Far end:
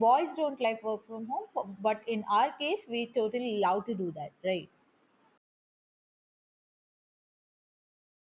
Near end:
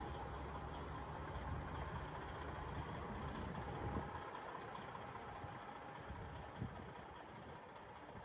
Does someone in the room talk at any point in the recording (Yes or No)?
No